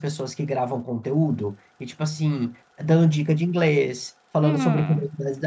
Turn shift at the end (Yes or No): Yes